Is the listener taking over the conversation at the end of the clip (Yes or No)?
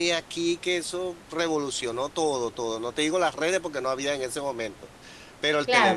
Yes